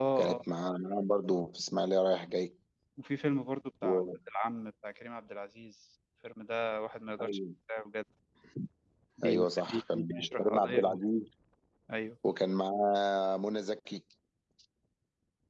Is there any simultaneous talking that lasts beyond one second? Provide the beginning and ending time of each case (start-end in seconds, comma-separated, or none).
9.2-11.0